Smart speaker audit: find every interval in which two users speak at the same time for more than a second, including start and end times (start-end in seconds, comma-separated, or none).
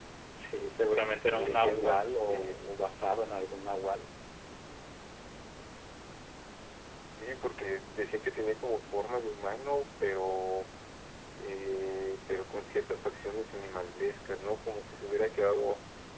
1.3-2.5